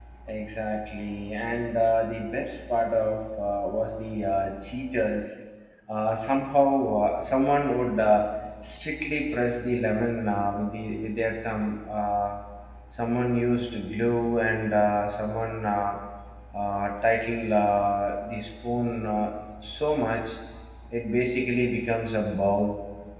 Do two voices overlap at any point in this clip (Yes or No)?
No